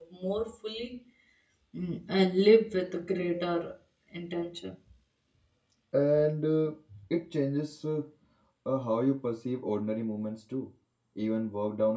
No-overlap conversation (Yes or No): Yes